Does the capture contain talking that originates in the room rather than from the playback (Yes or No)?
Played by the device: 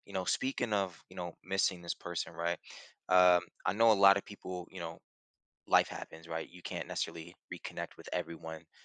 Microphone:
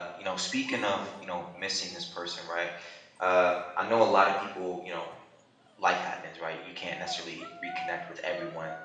No